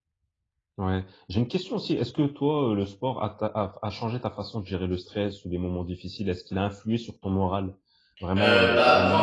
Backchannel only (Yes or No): No